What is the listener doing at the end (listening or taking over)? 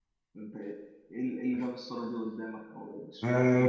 taking over